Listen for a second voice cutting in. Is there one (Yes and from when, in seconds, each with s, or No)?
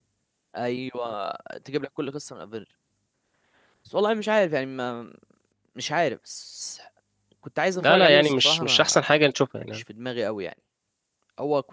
Yes, from 7.8 s